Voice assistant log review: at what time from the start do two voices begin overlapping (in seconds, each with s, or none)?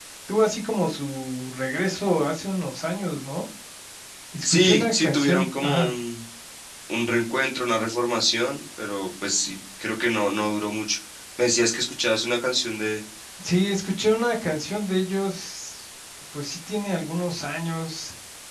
4.4 s